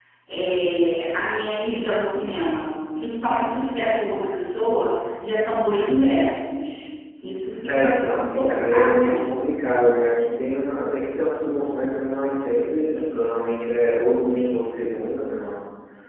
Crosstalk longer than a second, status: present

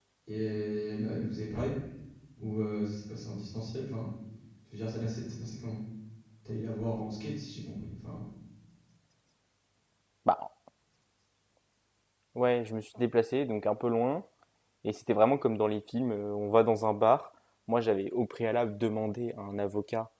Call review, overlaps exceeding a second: none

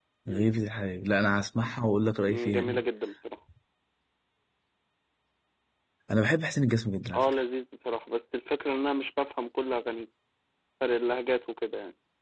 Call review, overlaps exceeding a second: none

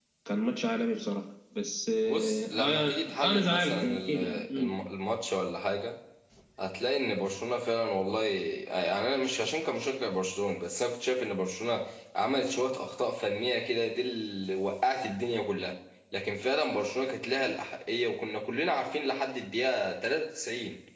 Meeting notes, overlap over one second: present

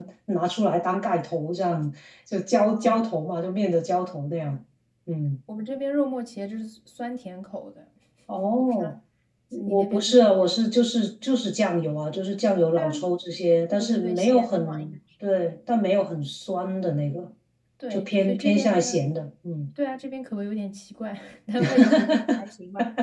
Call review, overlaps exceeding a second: present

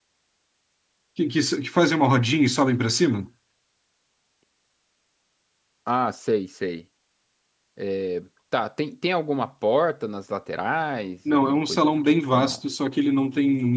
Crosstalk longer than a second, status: present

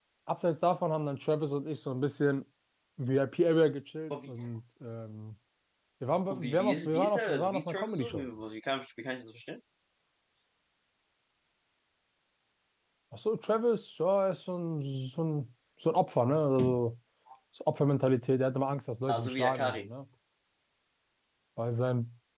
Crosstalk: present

